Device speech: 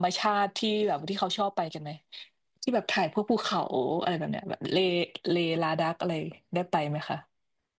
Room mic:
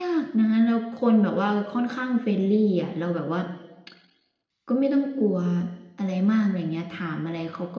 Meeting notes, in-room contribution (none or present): present